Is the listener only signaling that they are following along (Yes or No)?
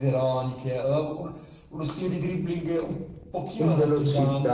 No